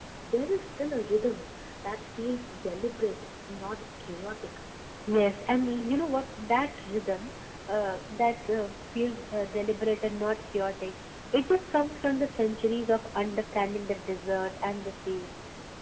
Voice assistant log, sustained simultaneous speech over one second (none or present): none